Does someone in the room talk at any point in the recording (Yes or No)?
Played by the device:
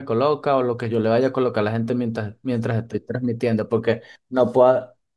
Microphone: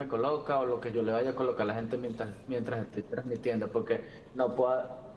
No